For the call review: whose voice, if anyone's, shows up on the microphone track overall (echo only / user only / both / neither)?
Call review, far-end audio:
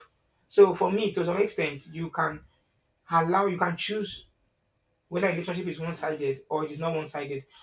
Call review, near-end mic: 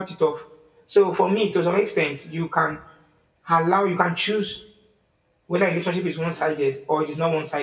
echo only